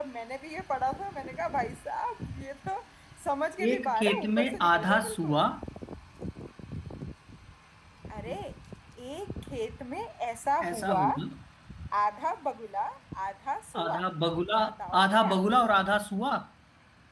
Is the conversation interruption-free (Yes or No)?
No